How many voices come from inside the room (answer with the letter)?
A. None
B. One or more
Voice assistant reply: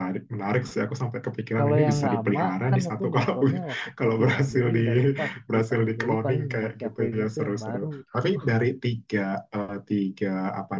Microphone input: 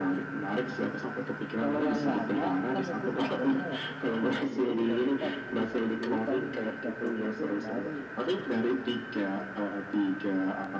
A